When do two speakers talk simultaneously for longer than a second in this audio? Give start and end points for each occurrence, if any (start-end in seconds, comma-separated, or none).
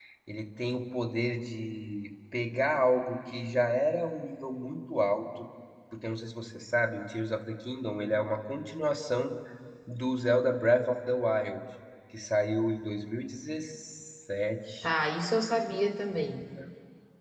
none